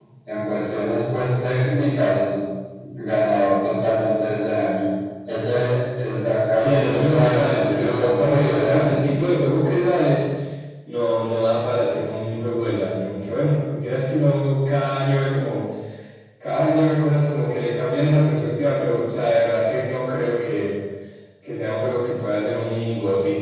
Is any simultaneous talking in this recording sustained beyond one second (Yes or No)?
Yes